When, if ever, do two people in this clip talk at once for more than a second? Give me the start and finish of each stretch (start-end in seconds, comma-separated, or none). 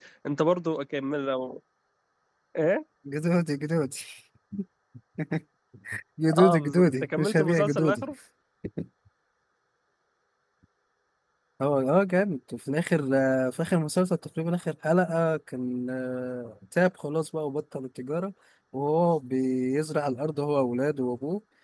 6.4-8.0